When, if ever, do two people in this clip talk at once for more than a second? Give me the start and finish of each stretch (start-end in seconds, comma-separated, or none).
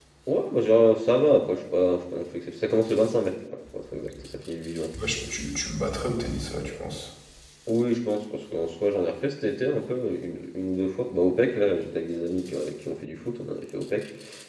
none